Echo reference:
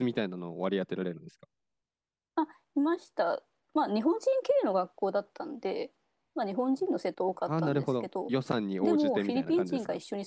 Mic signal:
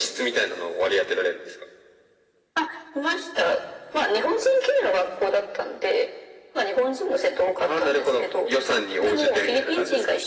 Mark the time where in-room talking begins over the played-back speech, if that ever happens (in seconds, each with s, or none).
none